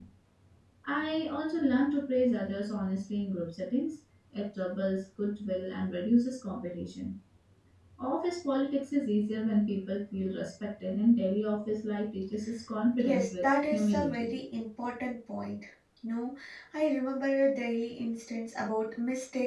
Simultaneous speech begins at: 13 s

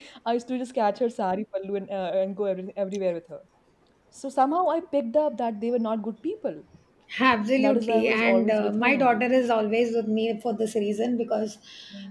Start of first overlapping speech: 8 s

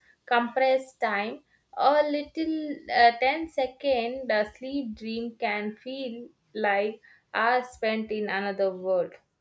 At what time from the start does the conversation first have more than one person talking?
none

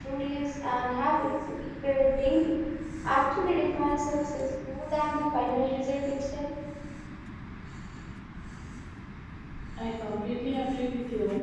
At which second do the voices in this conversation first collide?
none

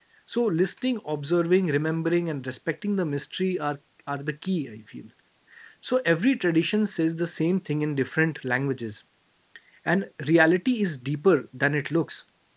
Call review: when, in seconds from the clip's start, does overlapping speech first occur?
none

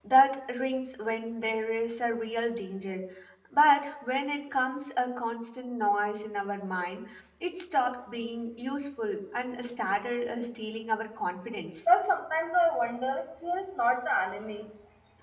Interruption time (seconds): none

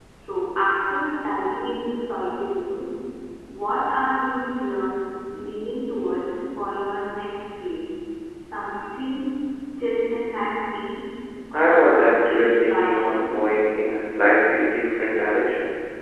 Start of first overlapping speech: 12 s

